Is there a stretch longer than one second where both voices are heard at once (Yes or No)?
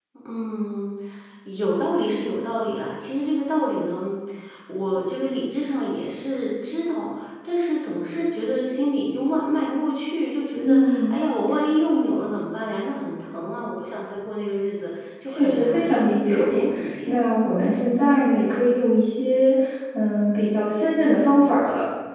Yes